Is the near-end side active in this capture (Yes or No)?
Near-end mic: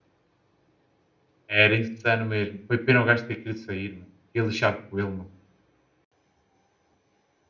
Yes